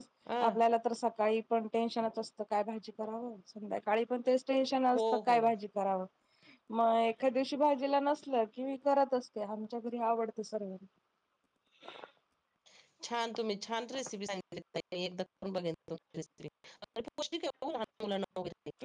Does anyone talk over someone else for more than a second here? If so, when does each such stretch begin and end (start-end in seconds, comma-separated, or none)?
none